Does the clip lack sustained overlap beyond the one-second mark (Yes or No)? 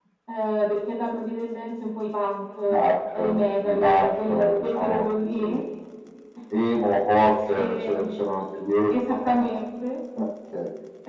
No